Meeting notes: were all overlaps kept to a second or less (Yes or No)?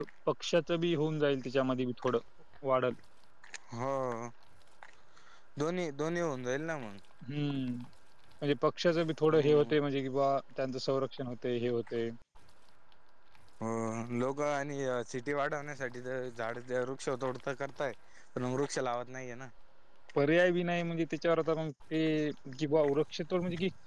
Yes